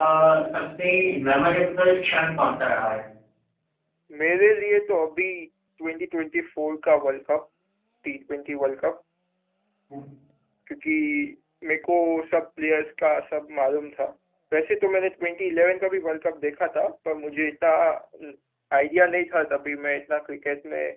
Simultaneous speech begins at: none

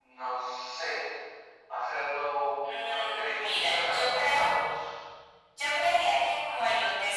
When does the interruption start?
2.6 s

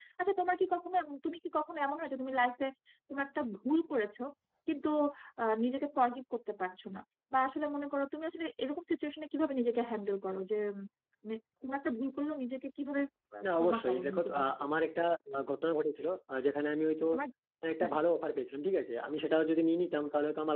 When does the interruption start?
13.4 s

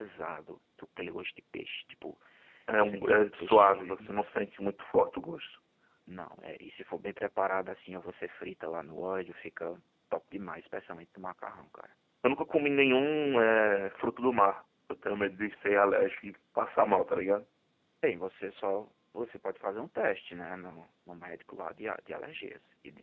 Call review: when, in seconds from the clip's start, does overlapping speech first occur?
2.8 s

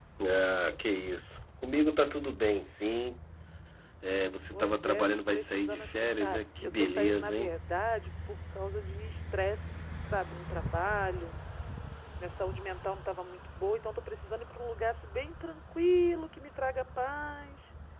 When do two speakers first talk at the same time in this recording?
4.5 s

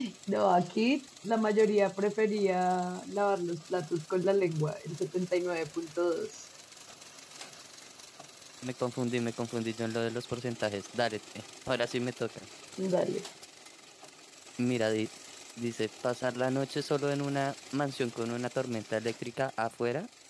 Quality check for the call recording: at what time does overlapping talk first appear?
none

